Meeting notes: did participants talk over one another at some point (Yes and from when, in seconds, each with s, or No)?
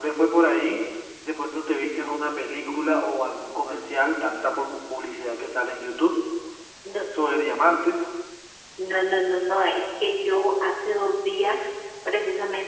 No